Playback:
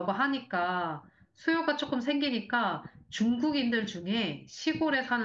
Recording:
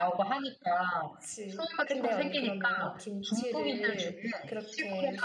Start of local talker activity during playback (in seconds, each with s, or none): 1.1 s